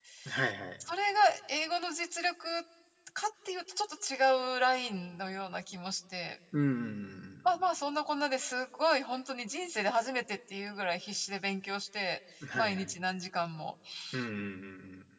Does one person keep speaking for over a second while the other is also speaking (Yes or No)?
No